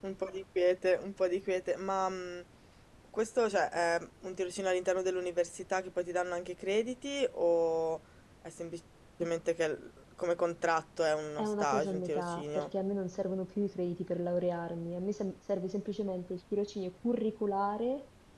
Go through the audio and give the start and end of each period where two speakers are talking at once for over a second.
11.4-12.7

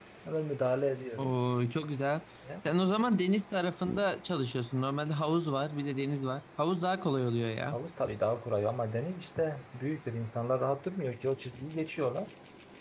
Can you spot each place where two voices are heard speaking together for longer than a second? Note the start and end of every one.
none

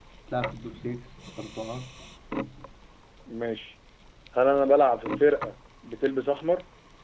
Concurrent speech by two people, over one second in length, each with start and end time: none

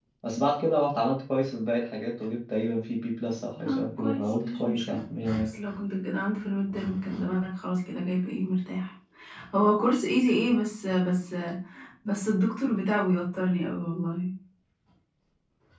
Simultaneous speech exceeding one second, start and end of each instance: 3.6-5.0

